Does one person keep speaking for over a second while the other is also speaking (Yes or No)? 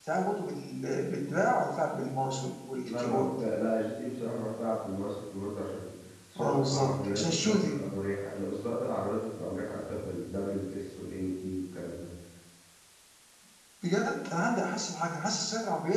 Yes